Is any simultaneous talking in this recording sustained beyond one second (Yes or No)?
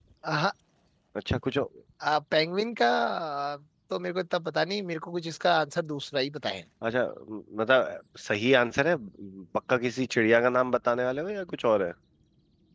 No